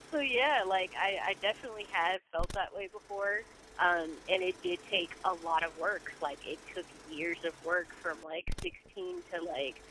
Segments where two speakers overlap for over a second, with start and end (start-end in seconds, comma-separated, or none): none